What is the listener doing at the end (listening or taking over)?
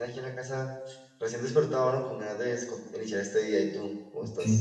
taking over